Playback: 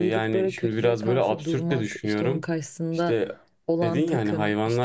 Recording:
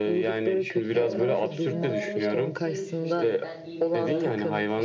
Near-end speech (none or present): present